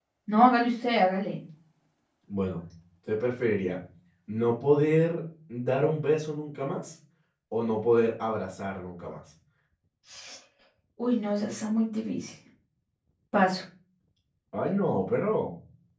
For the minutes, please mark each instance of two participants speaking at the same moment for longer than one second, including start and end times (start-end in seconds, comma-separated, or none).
none